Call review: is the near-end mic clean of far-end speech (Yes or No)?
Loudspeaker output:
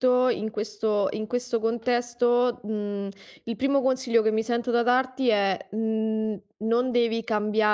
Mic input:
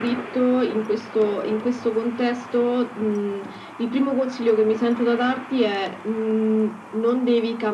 No